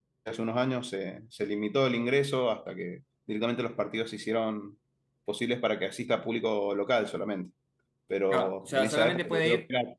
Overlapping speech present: Yes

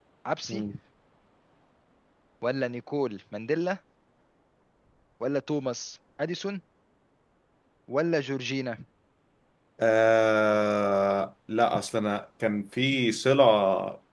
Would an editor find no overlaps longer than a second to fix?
Yes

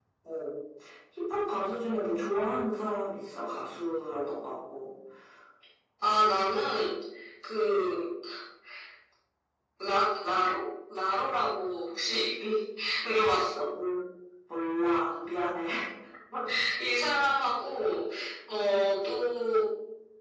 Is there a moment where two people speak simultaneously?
No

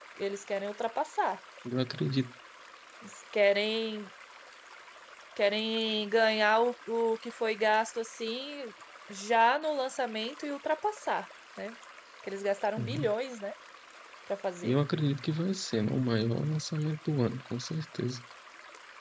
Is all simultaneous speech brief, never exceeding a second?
Yes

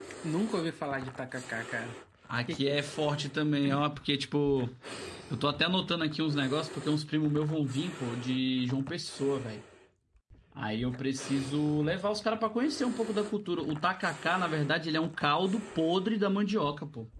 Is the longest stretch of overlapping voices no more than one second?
Yes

